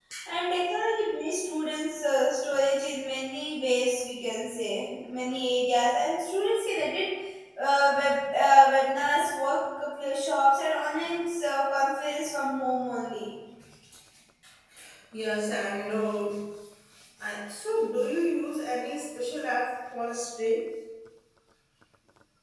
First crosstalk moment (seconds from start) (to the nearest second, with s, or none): none